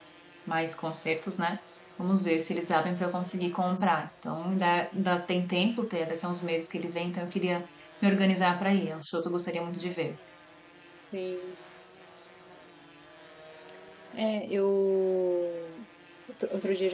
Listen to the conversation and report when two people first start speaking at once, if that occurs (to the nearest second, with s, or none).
none